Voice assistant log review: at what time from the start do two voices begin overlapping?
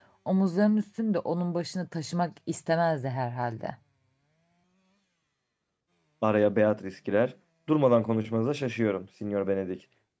none

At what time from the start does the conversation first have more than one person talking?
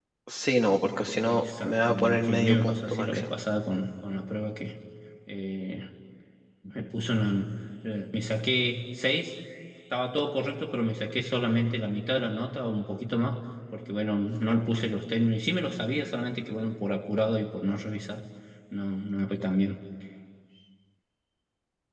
1.2 s

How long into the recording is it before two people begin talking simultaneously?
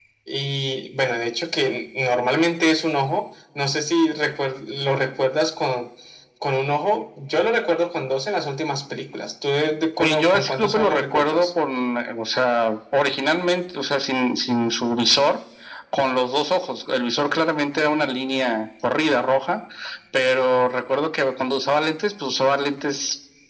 10.0 s

